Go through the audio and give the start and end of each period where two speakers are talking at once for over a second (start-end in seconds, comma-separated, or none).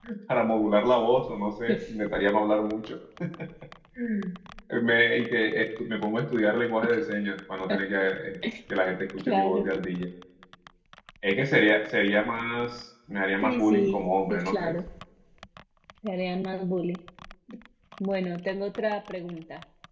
13.4-14.7